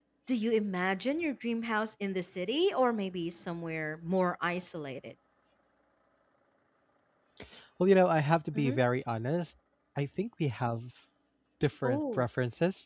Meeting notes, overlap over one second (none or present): none